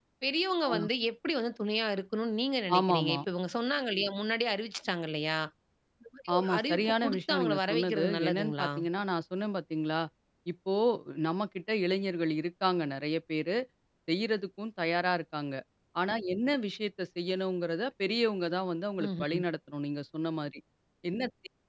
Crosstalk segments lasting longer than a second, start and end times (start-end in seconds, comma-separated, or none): 6.4-8.7